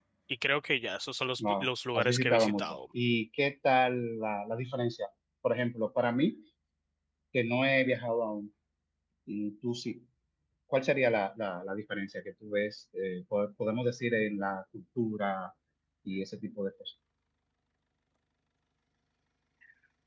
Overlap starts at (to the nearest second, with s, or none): 1 s